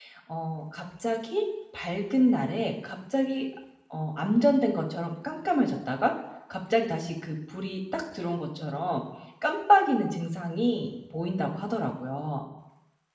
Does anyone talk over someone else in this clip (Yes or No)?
No